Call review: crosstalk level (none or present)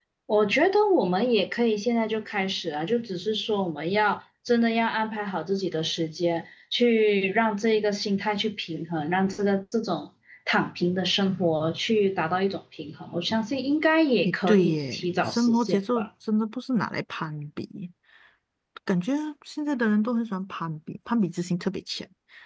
present